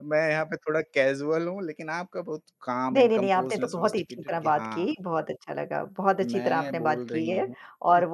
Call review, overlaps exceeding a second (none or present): present